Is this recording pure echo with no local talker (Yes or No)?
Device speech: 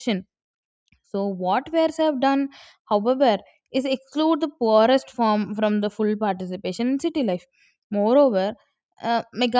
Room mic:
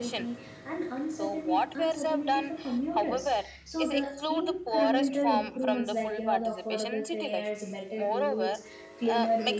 No